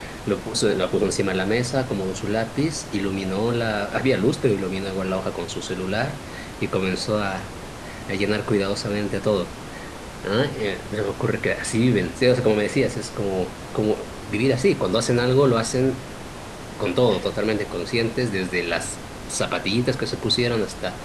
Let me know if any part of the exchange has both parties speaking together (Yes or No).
No